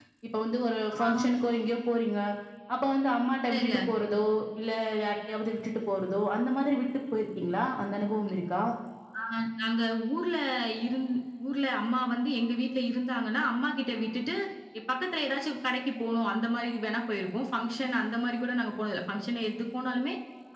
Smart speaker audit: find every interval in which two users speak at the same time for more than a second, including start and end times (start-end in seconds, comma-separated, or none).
none